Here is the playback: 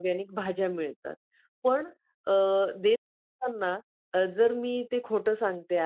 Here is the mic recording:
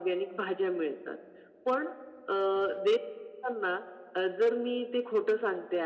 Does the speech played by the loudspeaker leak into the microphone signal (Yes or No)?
Yes